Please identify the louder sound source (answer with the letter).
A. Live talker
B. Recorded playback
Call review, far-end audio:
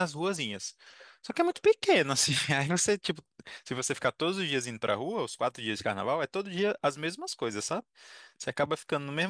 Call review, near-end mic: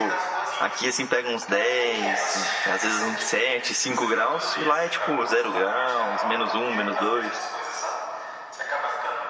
A